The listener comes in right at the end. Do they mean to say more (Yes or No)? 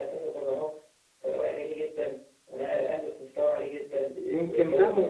Yes